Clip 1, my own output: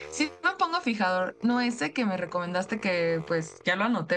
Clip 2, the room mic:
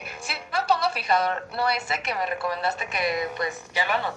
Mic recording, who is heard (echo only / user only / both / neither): echo only